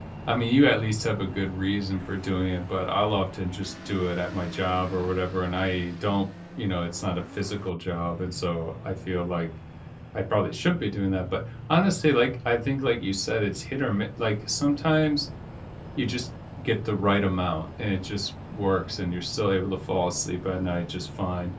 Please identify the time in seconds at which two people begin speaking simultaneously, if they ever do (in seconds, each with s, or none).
none